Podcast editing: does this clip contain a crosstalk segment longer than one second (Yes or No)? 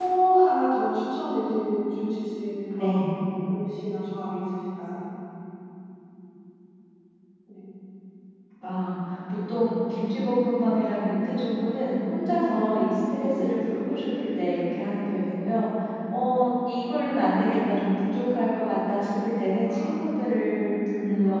No